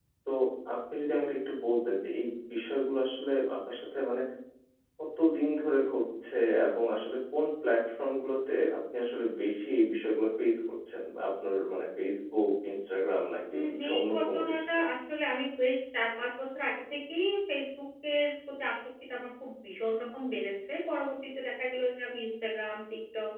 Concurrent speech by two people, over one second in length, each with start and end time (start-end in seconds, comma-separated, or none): 13.5-14.8